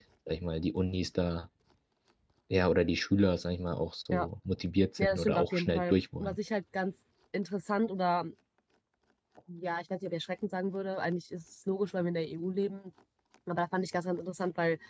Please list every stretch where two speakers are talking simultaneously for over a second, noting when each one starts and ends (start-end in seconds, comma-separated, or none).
5.0-6.4